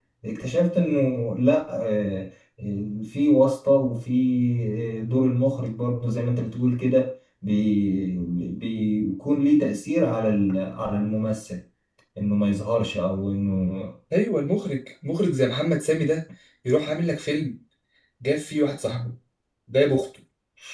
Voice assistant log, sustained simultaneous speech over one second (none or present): none